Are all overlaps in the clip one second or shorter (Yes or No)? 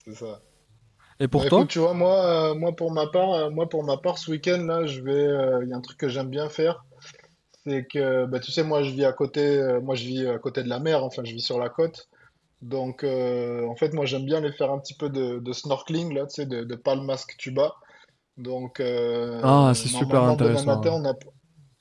No